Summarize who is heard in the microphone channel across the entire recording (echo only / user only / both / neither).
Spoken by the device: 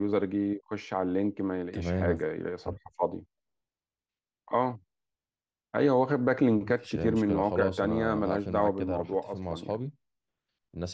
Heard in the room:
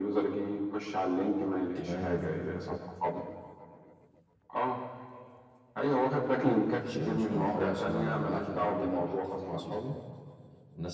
echo only